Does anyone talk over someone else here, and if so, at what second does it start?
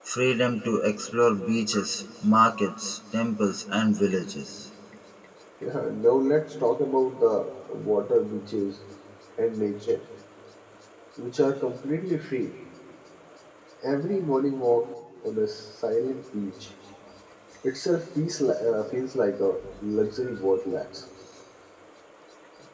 none

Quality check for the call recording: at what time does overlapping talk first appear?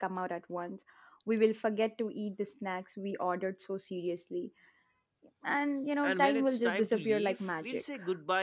6 s

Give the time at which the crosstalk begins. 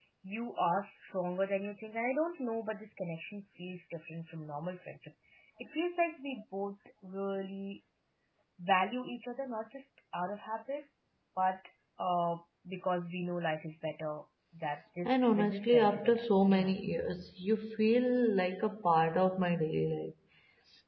15 s

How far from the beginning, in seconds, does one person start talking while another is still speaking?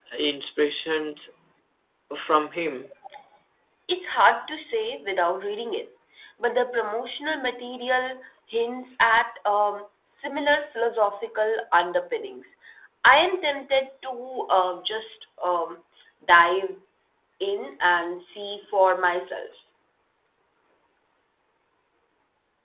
none

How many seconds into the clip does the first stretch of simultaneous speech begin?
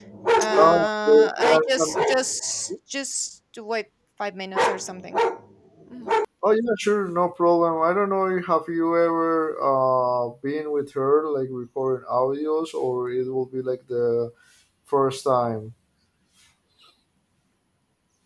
1 s

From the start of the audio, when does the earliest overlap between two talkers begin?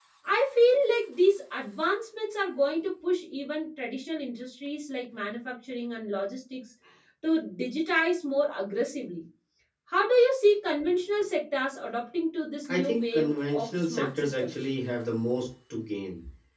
13 s

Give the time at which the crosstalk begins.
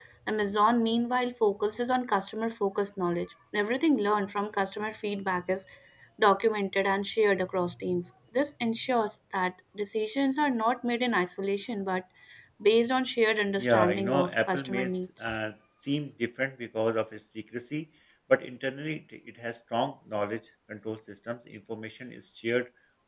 14 s

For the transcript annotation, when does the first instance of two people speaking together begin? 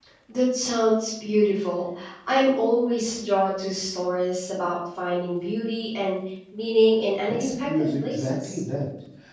7 s

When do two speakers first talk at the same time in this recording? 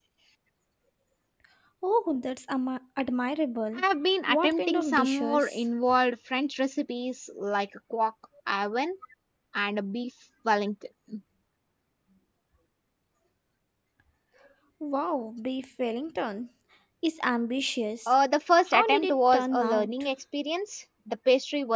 4 s

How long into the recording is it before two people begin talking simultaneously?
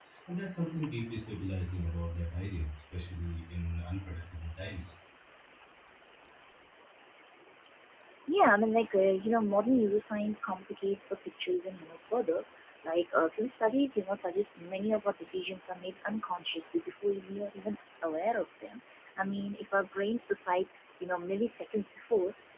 none

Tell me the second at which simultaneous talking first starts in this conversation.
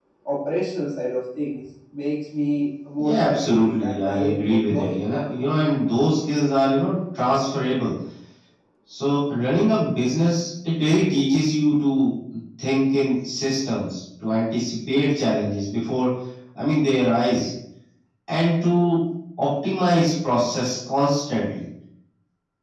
3 s

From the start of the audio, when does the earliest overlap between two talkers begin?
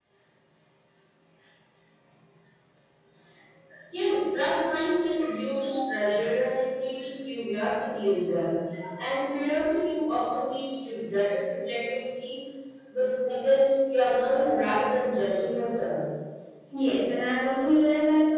none

